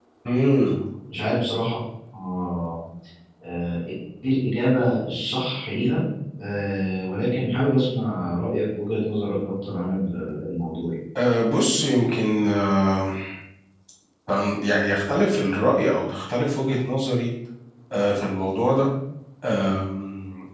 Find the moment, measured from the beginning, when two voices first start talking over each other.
none

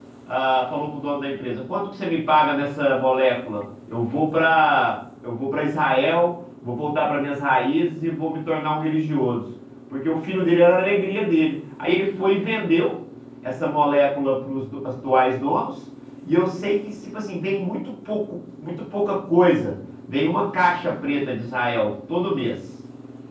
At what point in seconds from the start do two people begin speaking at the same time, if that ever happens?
none

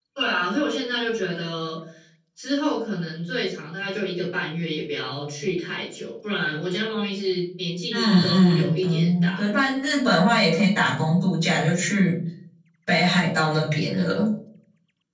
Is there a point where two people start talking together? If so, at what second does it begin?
7.9 s

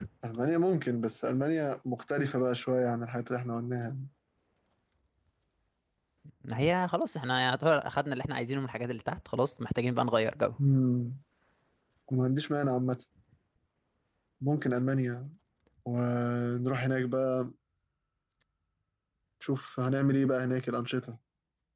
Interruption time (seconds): none

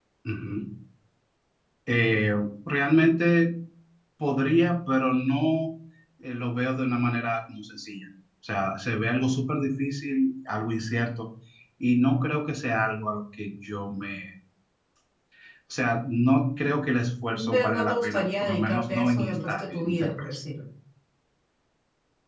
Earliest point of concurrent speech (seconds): 17.3 s

